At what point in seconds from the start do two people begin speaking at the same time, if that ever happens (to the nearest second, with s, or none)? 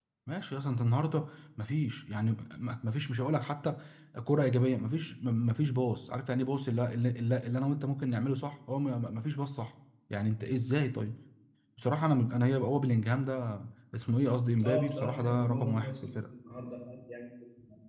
15 s